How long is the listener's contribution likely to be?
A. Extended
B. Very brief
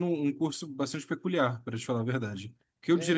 B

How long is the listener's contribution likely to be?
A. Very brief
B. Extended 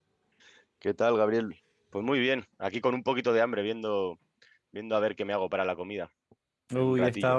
B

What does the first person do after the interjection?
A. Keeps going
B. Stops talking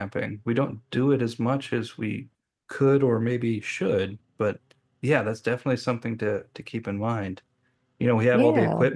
A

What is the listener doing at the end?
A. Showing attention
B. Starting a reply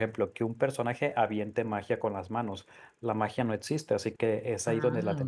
A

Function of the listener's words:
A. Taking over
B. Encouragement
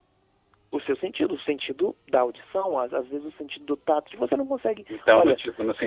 A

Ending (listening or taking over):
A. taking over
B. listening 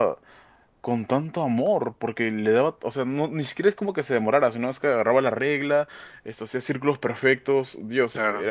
B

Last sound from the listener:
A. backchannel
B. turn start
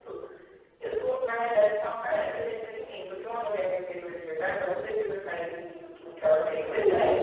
A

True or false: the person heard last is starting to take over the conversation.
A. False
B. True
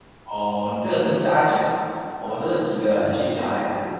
A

